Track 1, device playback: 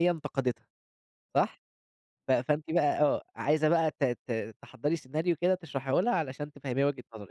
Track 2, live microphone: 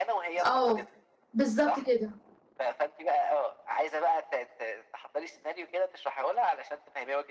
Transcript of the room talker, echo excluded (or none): آه، بالضبط كده.